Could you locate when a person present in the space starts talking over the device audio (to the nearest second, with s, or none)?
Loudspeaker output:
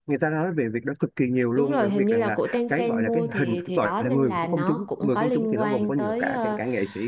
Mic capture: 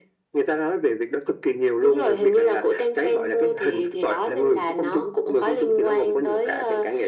none